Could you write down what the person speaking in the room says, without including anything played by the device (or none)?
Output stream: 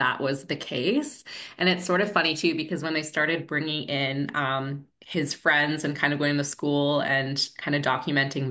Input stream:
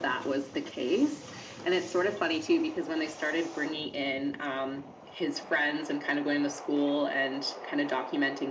none